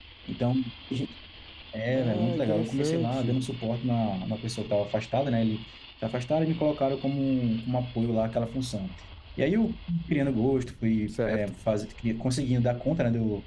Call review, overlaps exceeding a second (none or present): present